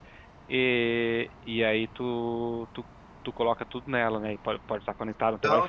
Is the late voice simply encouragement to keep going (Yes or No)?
Yes